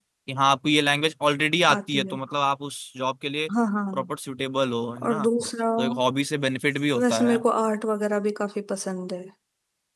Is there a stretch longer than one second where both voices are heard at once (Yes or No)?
No